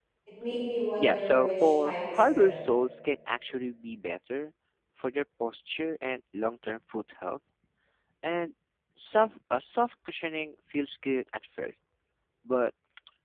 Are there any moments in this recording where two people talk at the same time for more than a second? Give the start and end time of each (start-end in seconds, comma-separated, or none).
1.0-2.7